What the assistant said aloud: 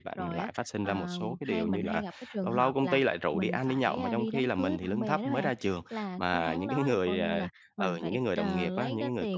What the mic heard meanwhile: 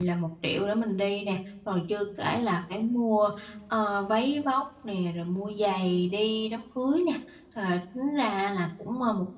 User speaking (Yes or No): Yes